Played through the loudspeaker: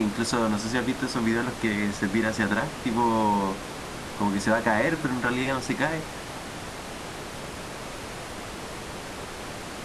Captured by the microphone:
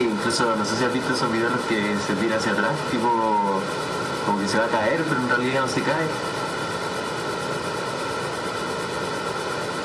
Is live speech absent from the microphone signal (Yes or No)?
Yes